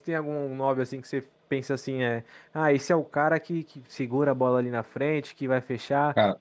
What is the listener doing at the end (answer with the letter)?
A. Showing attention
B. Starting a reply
A